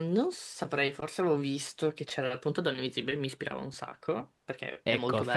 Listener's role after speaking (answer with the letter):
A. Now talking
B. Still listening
A